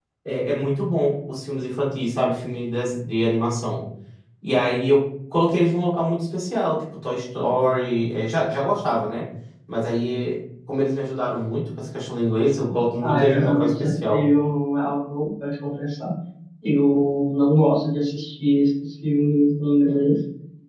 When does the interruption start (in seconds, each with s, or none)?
13.0 s